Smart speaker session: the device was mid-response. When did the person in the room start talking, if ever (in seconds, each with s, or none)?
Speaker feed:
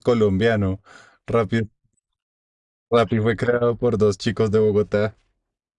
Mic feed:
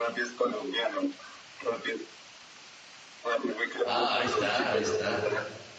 3.8 s